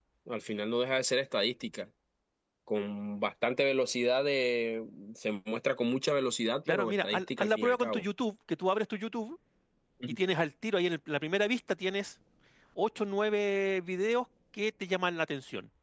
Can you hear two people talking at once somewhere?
Yes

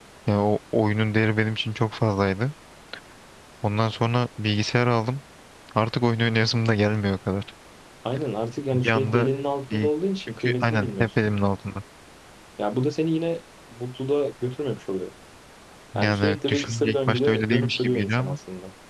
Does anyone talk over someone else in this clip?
Yes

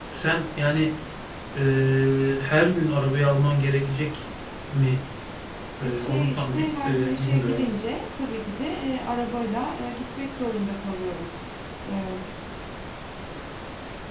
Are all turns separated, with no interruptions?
No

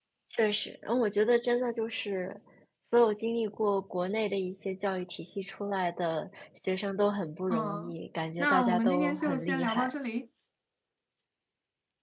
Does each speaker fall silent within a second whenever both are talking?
No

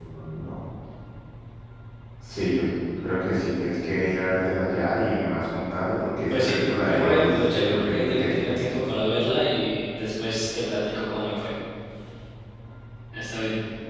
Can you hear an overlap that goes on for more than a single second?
Yes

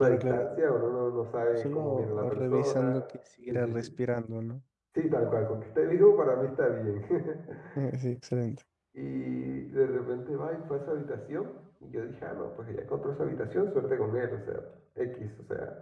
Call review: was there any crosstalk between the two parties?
Yes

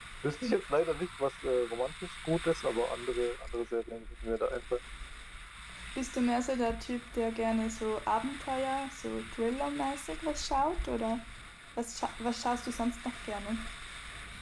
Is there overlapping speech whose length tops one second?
No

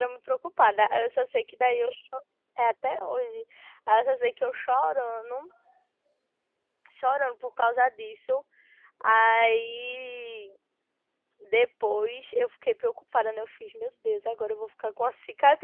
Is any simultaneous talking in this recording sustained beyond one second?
No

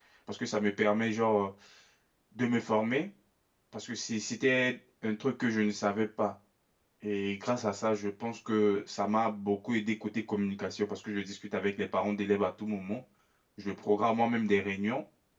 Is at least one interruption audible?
No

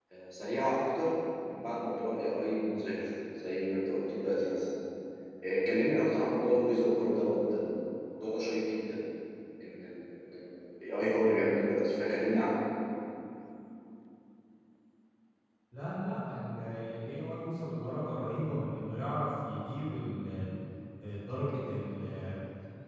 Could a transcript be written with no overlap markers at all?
Yes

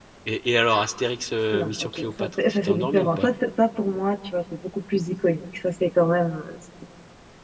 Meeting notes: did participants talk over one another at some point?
Yes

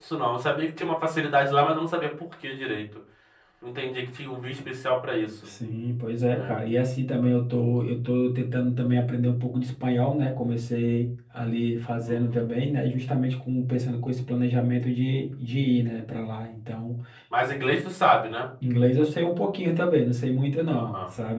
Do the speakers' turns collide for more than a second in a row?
No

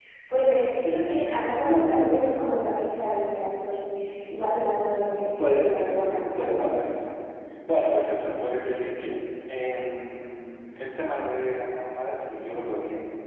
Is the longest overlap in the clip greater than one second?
Yes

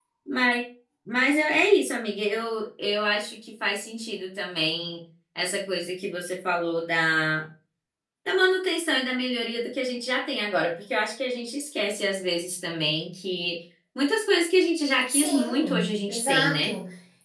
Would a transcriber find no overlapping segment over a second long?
No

